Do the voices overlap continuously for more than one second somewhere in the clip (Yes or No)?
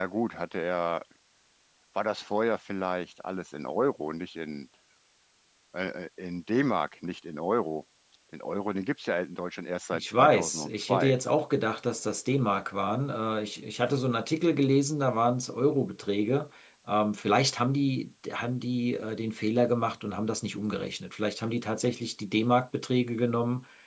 Yes